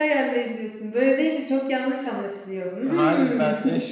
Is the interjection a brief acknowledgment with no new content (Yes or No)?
No